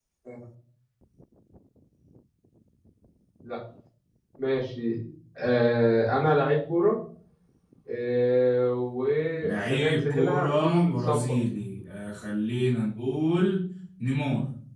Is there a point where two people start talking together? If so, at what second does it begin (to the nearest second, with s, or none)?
9 s